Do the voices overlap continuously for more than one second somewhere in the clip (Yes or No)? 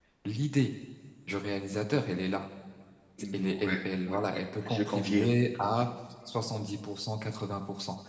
Yes